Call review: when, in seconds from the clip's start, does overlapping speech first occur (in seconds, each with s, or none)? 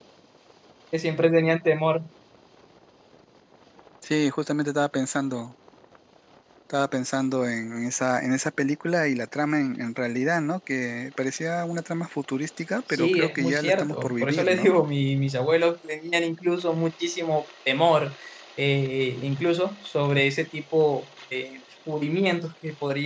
12.9 s